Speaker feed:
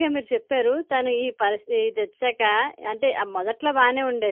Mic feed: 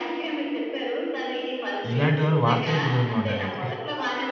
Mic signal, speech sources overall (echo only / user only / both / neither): both